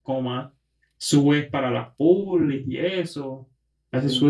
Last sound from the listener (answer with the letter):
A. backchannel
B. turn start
A